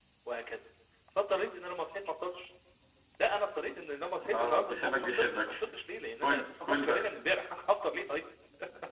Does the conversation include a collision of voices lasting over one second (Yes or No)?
Yes